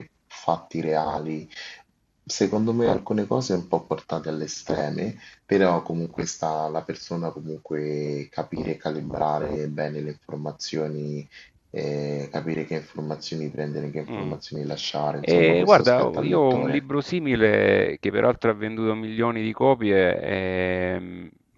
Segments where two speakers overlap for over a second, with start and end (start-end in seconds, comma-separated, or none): 15.2-16.8